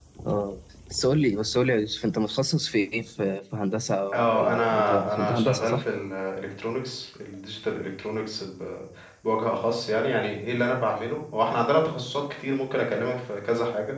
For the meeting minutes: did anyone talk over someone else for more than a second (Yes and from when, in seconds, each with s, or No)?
Yes, from 4.1 s